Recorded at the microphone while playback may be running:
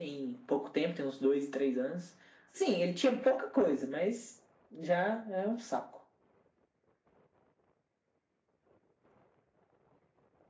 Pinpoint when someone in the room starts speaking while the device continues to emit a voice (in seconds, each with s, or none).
none